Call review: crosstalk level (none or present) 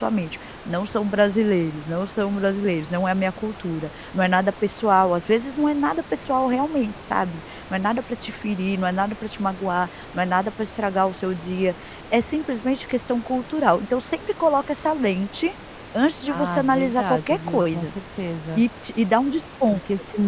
present